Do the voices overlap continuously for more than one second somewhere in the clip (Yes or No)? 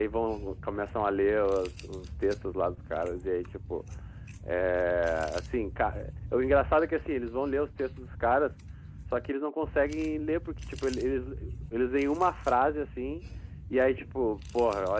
No